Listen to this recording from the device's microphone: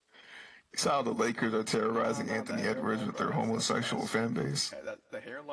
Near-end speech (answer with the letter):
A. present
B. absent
A